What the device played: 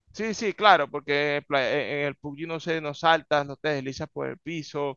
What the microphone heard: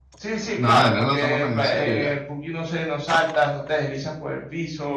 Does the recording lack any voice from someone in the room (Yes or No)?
No